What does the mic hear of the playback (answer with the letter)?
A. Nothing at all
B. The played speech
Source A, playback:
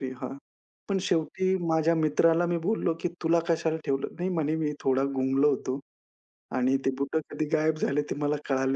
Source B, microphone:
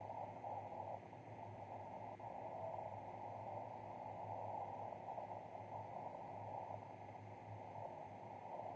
A